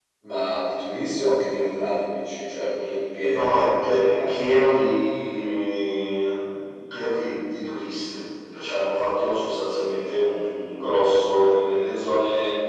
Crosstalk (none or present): present